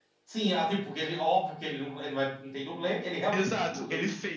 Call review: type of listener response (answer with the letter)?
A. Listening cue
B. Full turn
B